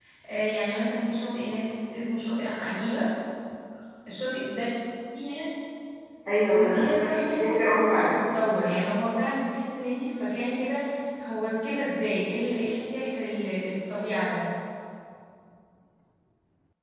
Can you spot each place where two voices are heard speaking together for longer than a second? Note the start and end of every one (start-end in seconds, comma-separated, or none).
6.7-8.1